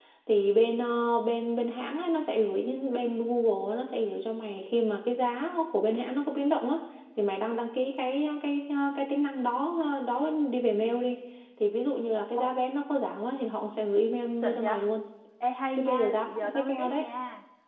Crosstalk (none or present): present